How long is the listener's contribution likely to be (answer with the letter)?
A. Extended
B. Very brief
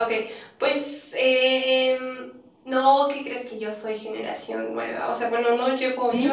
B